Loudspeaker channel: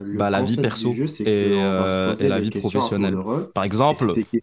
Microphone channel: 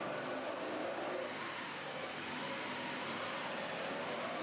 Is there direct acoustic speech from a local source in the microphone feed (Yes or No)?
No